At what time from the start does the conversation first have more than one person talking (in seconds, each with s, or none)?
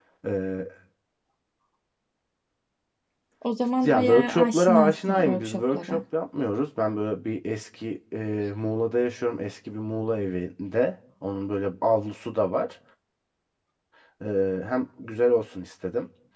3.8 s